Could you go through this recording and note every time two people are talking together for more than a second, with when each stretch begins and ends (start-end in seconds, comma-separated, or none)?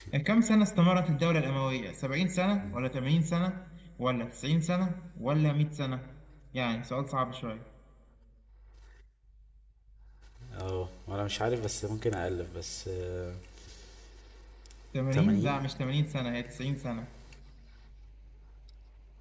none